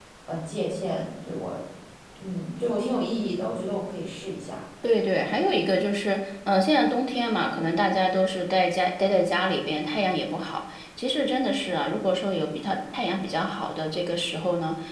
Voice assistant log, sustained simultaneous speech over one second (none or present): none